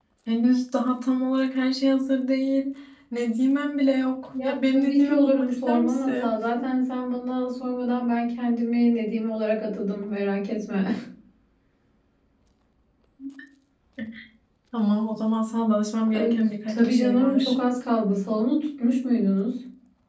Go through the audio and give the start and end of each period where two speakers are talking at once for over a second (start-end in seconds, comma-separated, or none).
4.4-6.3, 16.2-17.5